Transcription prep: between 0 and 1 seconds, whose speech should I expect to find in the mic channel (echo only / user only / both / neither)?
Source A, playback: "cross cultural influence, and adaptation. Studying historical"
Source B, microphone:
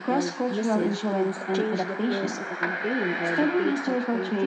both